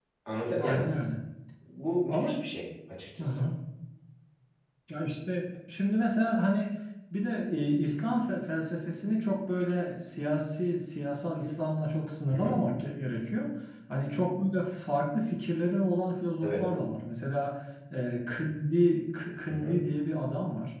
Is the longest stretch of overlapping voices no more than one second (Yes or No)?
Yes